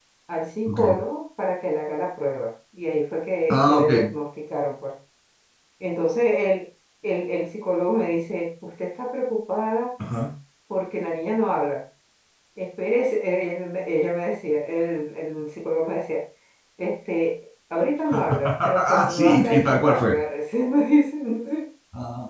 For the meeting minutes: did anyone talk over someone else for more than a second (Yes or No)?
Yes